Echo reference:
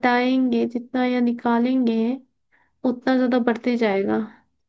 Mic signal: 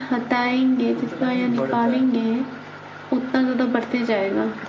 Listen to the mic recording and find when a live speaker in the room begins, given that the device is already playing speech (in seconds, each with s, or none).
1.0 s